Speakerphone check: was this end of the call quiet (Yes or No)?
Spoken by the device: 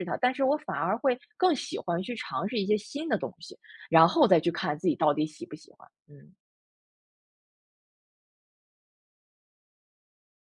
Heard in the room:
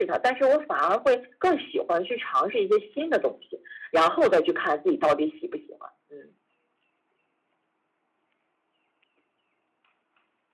Yes